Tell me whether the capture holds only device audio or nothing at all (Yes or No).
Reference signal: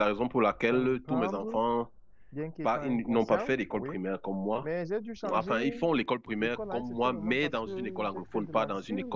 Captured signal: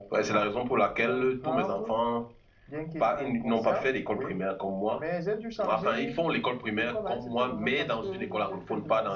Yes